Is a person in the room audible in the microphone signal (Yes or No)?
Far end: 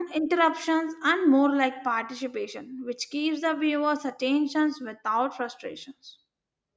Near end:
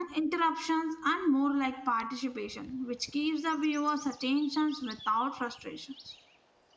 No